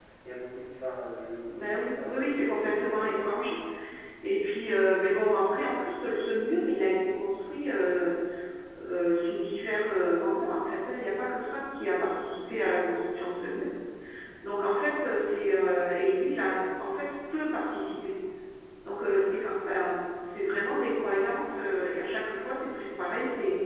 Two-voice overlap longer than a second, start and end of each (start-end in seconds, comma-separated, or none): 1.6-3.3